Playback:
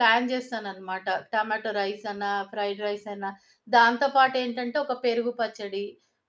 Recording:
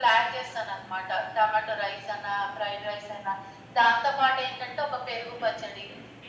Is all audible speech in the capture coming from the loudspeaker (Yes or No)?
Yes